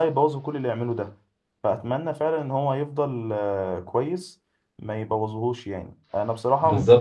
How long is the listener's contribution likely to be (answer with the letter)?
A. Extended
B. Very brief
B